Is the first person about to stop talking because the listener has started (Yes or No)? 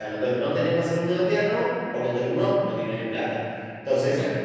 No